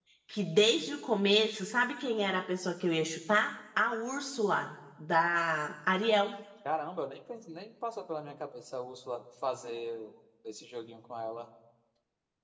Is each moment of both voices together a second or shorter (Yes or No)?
Yes